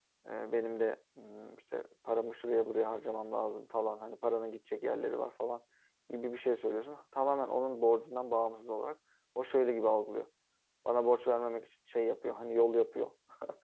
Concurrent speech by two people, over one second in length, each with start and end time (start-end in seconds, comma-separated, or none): none